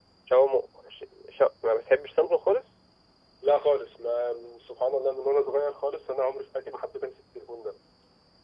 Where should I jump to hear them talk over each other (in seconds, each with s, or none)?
none